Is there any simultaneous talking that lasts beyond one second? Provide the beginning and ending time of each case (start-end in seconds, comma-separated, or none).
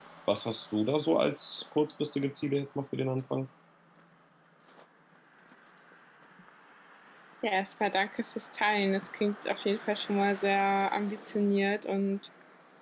none